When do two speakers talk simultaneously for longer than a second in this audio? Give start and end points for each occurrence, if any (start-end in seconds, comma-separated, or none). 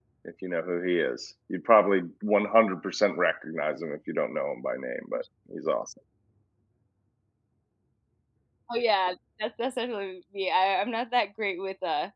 none